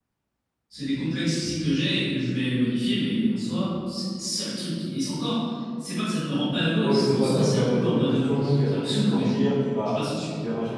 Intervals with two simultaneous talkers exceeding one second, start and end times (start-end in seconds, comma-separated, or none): 6.8-9.3